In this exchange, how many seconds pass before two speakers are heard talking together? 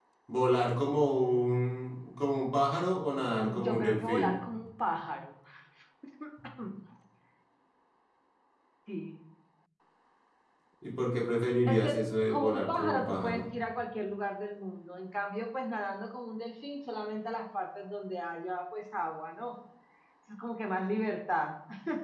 3.2 s

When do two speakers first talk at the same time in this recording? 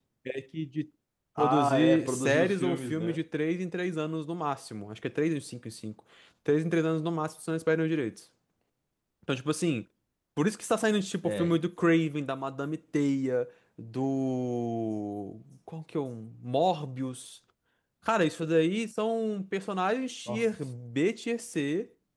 1.4 s

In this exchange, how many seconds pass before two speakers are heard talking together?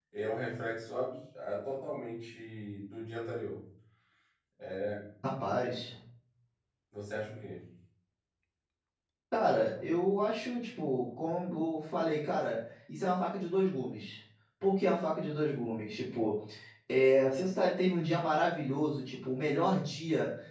none

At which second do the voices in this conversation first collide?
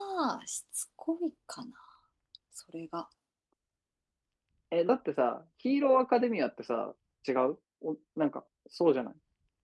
none

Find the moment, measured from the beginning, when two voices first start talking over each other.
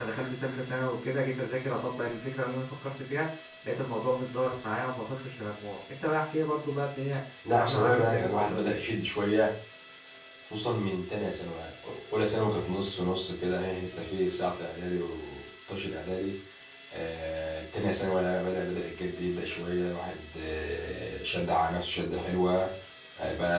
7.4 s

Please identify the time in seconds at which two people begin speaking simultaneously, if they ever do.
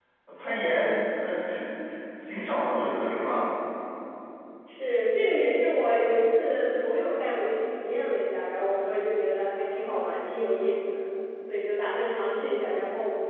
none

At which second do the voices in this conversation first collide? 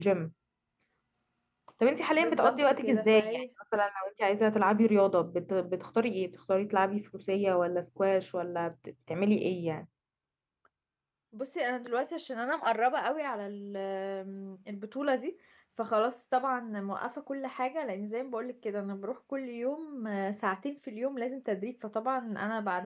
2.2 s

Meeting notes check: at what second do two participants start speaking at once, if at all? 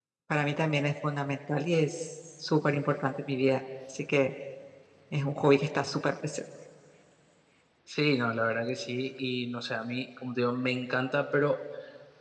none

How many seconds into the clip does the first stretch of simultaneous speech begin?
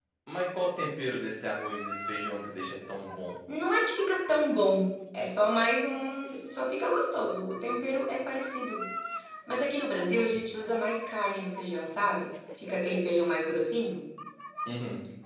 none

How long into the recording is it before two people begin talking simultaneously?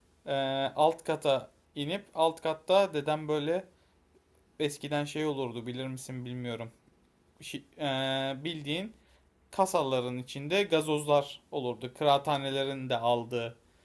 none

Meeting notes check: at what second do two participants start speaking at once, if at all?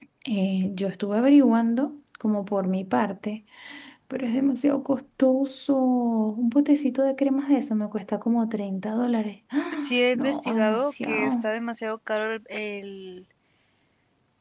9.7 s

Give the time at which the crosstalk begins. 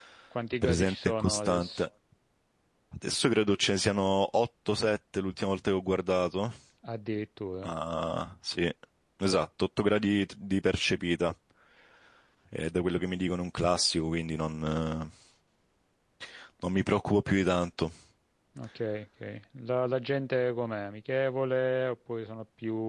0.6 s

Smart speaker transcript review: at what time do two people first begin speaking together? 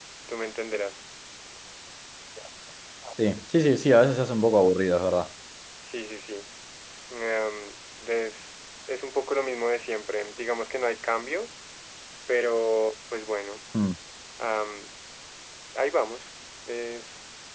none

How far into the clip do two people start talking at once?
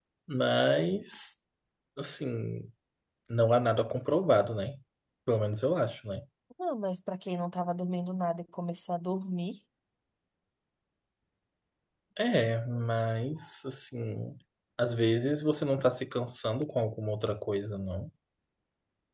none

